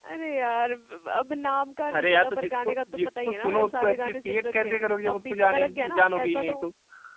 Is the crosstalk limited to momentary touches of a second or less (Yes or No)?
No